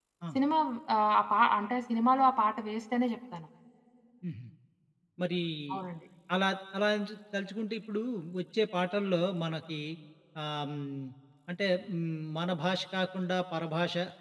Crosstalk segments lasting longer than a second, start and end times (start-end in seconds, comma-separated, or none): none